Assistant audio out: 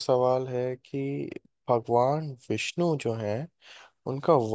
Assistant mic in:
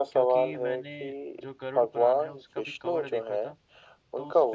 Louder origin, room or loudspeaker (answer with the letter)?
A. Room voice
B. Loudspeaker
B